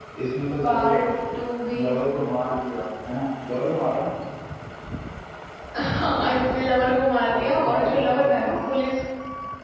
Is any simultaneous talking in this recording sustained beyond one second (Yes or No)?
Yes